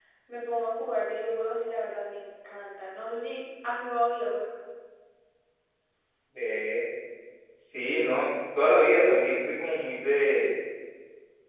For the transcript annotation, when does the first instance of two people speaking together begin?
none

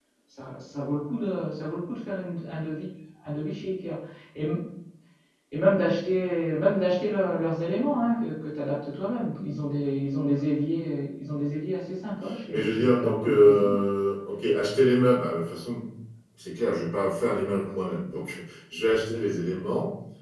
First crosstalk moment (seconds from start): 12.5 s

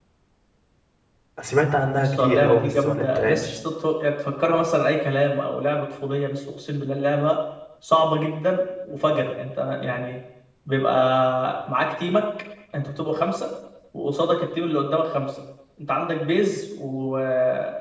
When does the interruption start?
2.0 s

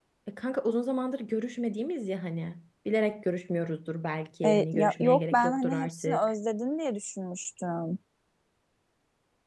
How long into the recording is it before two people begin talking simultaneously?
4.4 s

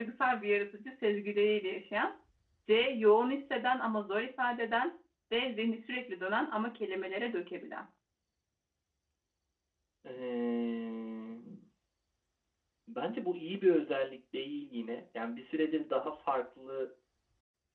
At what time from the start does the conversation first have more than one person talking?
none

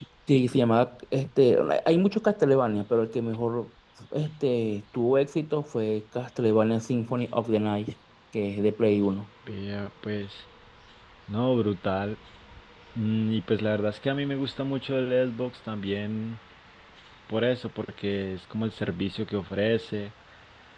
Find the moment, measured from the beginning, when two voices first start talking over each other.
none

